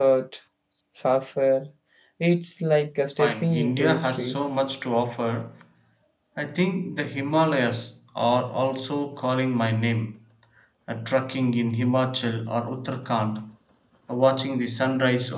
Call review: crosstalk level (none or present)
present